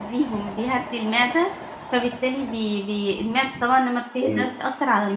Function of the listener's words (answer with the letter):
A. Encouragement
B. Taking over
A